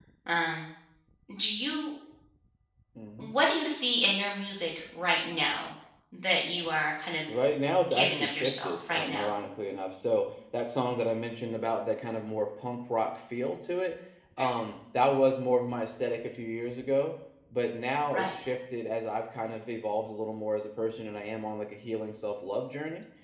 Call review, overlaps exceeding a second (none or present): present